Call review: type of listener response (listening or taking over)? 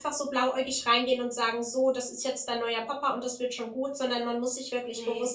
listening